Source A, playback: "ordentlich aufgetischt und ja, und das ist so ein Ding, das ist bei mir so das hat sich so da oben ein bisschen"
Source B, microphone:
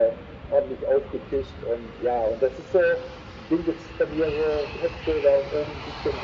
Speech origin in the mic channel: echo only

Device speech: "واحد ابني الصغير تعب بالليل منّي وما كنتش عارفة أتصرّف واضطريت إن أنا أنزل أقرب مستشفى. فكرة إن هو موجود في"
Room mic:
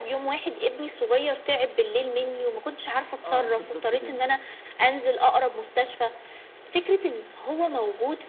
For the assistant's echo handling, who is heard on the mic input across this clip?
both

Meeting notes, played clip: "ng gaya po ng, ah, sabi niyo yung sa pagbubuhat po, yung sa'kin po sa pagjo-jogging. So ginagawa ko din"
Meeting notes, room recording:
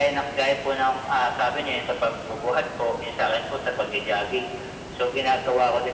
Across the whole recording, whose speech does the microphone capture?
echo only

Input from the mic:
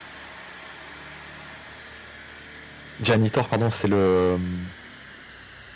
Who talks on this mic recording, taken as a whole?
user only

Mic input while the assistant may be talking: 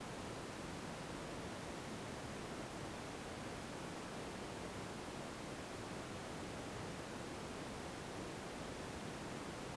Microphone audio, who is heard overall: neither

